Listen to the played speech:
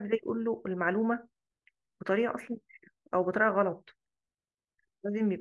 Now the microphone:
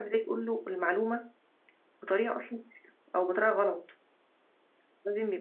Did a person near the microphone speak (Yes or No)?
No